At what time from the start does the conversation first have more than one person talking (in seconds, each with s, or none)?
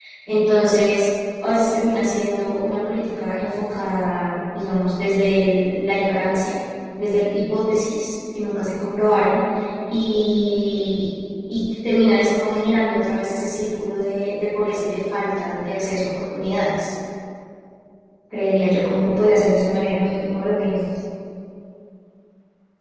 none